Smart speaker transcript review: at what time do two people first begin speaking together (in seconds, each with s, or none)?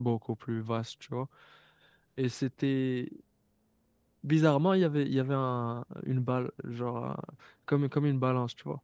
none